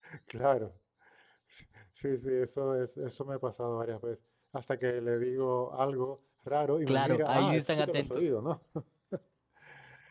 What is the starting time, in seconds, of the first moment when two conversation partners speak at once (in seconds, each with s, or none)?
6.9 s